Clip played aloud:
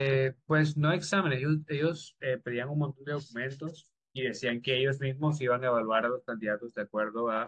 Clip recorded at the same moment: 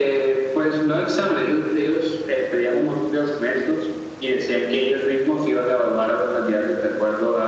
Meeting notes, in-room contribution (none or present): none